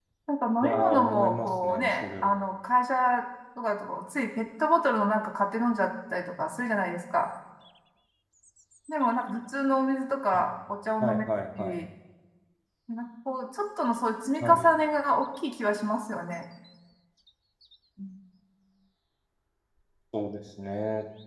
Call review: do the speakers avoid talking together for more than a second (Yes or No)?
No